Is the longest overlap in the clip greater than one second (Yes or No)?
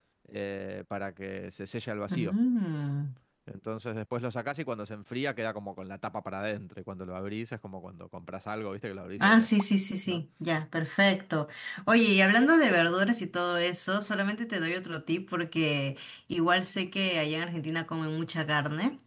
No